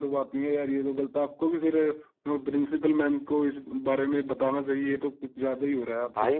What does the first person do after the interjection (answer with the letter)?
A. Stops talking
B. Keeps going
A